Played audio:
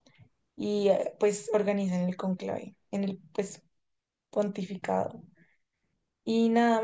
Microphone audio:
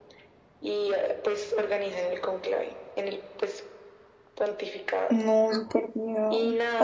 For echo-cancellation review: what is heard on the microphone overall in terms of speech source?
both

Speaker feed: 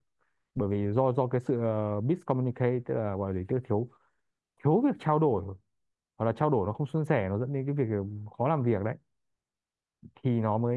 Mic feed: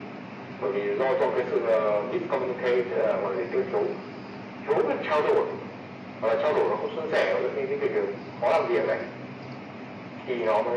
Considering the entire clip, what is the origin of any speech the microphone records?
echo only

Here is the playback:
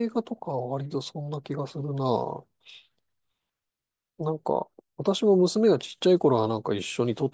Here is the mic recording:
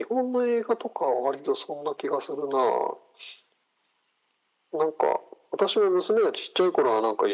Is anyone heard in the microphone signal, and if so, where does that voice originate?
echo only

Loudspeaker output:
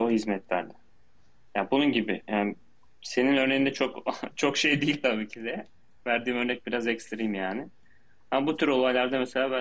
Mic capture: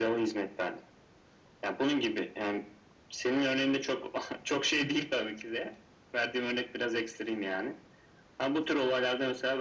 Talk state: echo only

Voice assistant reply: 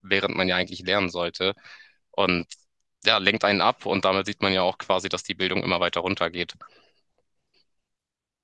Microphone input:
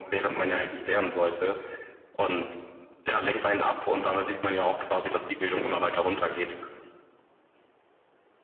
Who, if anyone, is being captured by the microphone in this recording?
echo only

